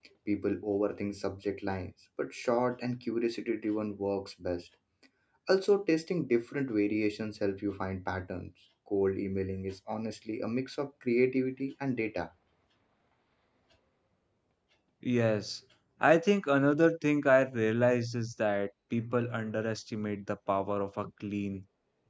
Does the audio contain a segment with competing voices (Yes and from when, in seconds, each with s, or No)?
No